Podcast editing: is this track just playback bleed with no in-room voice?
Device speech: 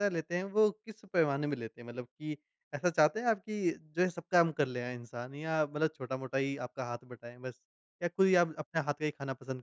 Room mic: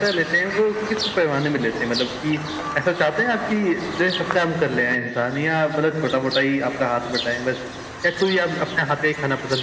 Yes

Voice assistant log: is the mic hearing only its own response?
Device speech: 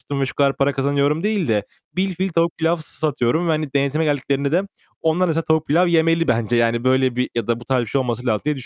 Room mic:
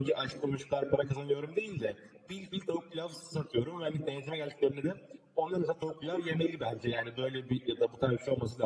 Yes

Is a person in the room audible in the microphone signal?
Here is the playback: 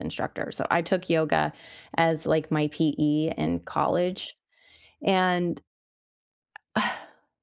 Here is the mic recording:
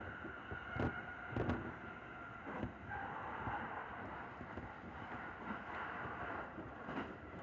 No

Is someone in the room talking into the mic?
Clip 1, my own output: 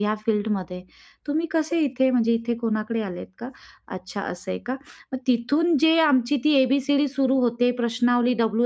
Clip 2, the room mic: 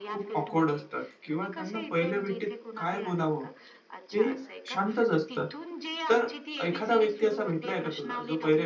Yes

